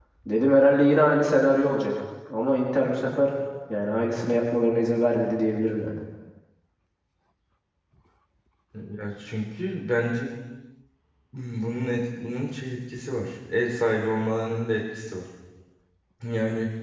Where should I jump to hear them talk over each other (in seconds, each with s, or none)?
none